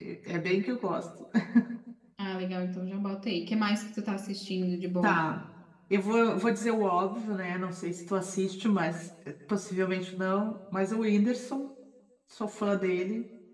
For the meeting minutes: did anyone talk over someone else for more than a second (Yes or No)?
No